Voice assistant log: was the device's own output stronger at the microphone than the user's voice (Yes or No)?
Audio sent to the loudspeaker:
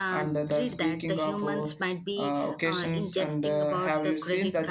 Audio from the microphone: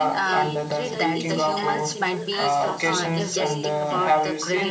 Yes